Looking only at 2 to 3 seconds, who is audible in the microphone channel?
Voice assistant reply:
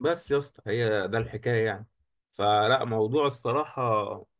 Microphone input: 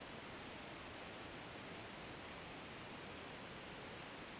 neither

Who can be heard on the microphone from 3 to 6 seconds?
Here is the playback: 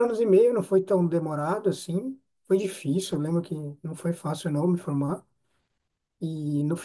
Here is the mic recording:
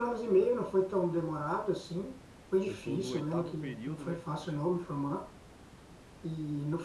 both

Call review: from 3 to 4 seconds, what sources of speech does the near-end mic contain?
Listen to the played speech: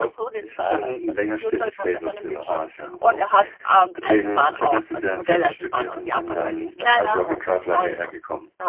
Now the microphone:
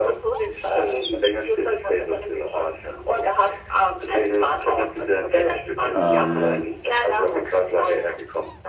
echo only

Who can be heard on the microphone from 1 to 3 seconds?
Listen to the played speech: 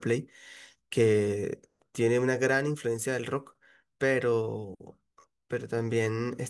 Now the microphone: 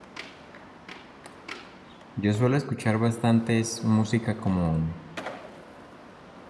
user only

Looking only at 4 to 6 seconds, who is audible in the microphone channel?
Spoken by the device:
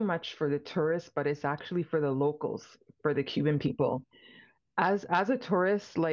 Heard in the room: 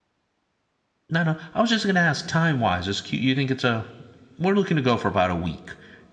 user only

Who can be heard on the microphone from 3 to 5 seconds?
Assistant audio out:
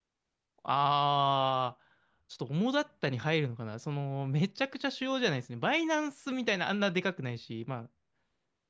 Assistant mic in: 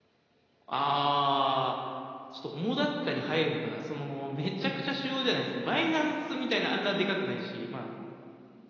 echo only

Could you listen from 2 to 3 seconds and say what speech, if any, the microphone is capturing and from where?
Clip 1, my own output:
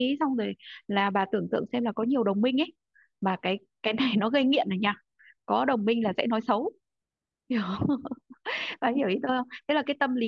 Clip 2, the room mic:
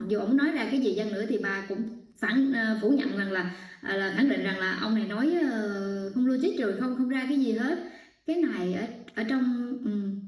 user only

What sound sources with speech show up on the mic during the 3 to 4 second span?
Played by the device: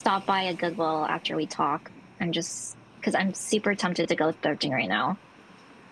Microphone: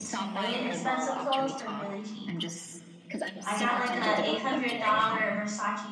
both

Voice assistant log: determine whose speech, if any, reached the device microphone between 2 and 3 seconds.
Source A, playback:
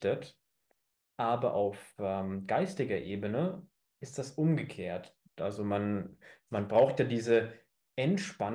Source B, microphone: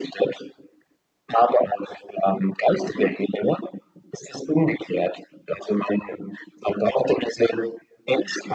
echo only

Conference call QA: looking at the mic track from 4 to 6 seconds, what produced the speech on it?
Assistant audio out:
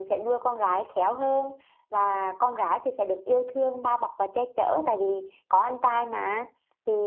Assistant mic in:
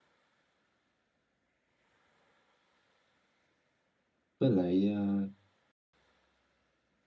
user only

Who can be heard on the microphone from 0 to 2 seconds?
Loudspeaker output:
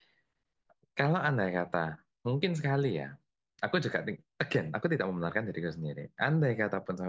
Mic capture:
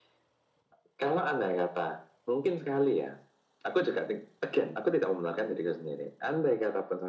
echo only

